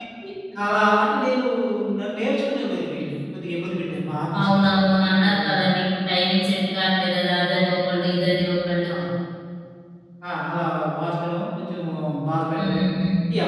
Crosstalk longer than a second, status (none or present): none